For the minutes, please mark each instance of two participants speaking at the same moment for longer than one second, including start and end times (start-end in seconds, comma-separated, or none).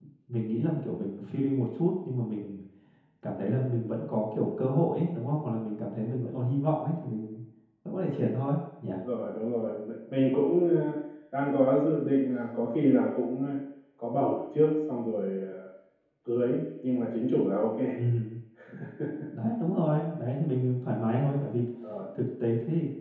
none